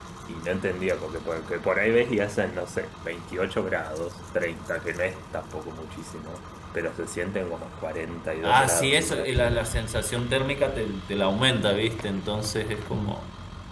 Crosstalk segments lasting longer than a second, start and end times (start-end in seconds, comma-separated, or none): 8.4-9.8